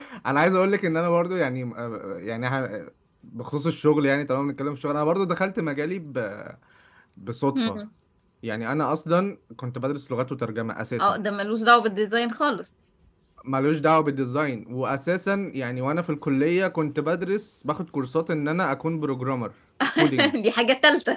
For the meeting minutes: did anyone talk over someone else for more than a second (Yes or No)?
No